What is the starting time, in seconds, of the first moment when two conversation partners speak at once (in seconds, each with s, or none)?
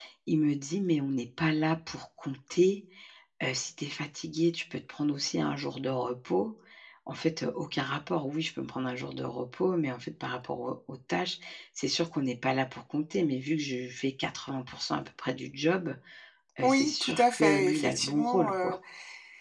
16.6 s